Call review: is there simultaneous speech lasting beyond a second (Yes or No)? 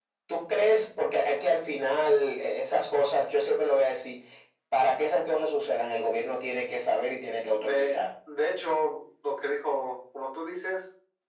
No